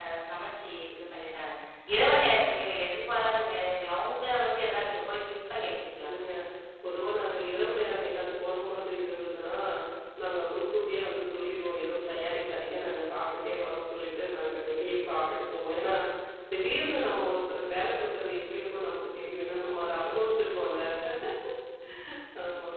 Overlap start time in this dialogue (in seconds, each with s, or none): none